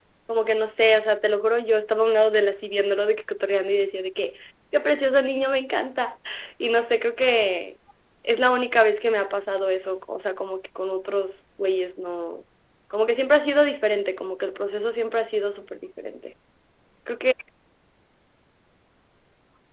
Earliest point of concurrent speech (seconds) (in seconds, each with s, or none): none